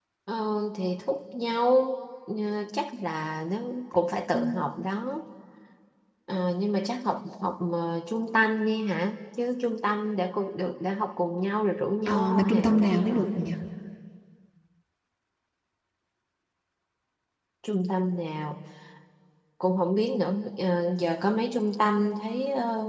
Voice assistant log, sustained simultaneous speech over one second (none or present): present